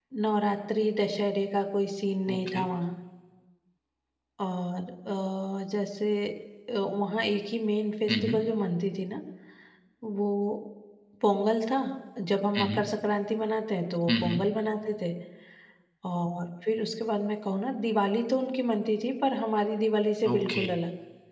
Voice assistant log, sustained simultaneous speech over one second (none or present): none